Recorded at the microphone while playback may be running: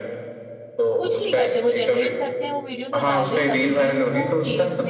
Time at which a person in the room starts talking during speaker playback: 1.0 s

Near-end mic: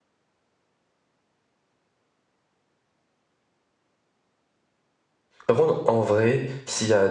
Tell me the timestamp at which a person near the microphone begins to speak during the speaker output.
5.5 s

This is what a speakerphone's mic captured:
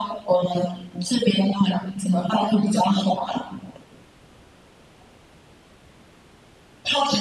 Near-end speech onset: none

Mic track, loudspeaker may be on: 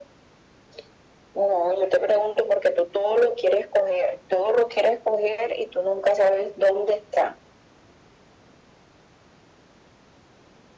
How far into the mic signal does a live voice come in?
none

